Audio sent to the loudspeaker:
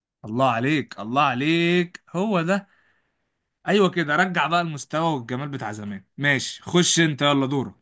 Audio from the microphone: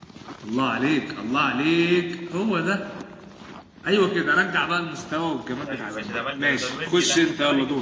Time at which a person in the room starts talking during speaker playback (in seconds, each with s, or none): 5.7 s